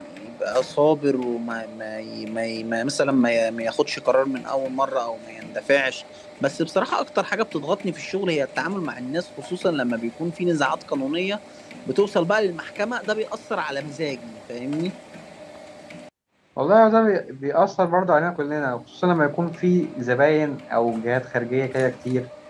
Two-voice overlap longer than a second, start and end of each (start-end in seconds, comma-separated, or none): none